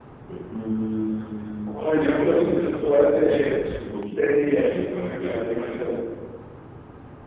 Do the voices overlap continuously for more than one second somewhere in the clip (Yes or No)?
Yes